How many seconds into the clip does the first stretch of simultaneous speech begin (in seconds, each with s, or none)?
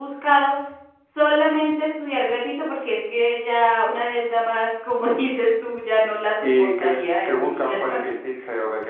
6.4 s